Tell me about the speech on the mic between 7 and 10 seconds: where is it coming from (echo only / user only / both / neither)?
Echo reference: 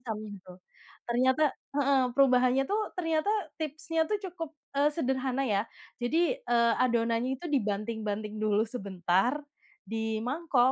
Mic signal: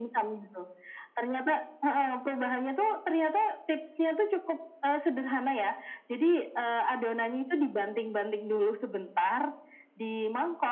echo only